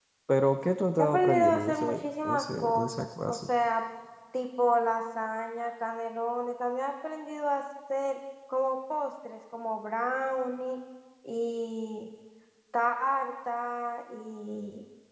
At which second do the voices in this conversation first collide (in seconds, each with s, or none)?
1.0 s